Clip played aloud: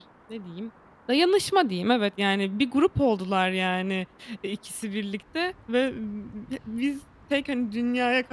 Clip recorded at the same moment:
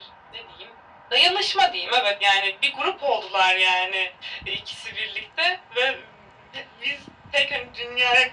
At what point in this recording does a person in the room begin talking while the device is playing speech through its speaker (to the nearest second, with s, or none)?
none